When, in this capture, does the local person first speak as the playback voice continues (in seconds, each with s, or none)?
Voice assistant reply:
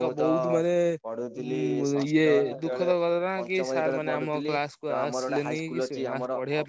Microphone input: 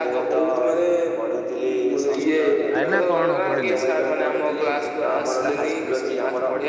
2.8 s